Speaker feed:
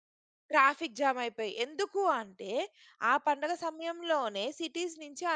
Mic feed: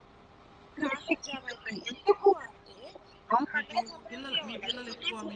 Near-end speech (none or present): present